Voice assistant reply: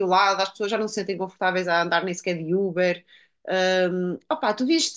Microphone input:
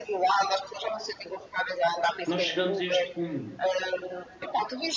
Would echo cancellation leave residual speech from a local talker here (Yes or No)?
Yes